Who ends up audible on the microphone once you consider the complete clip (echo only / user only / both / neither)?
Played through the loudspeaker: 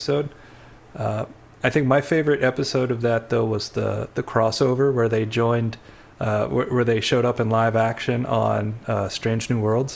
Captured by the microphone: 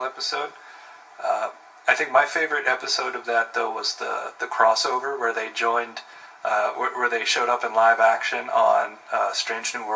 echo only